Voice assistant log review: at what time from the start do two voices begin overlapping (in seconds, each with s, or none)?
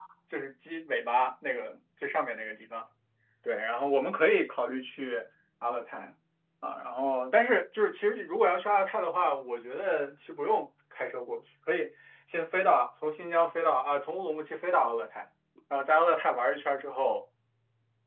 none